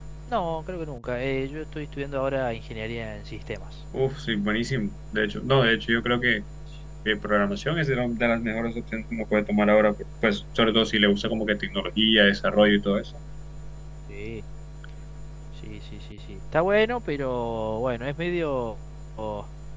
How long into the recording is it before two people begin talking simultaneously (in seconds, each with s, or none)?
none